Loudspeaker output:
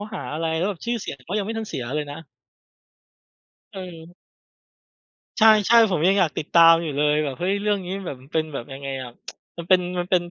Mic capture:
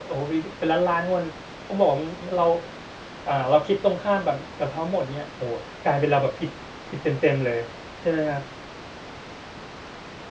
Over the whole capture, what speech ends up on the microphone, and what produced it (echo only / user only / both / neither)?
user only